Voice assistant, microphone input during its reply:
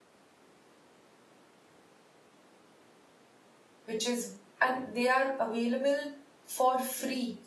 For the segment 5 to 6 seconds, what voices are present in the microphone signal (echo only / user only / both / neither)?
user only